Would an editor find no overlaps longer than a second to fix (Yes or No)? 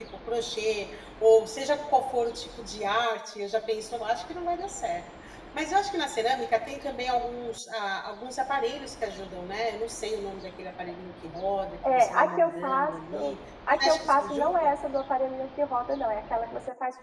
No